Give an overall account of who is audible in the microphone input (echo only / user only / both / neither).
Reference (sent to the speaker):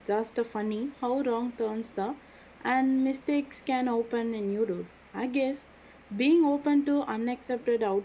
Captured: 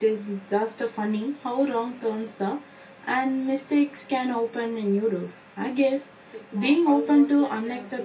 both